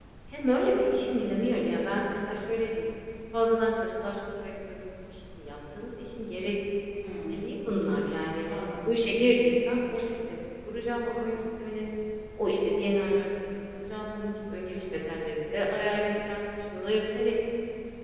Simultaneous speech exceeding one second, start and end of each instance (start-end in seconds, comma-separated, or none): none